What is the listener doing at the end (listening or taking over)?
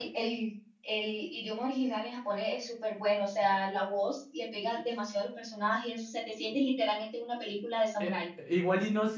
taking over